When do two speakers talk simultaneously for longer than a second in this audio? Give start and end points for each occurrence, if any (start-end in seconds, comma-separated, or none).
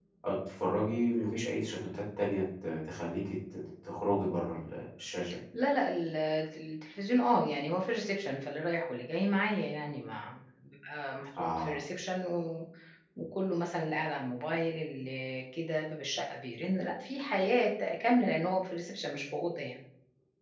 none